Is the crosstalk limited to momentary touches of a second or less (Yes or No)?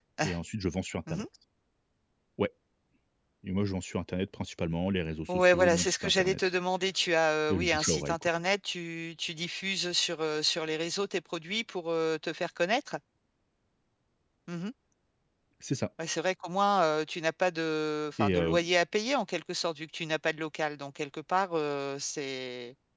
No